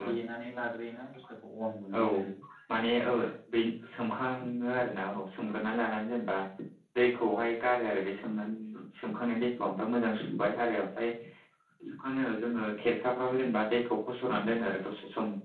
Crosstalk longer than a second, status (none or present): none